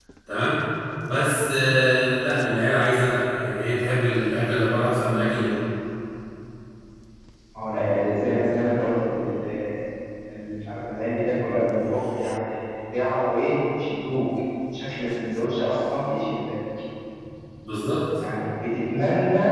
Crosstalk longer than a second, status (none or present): none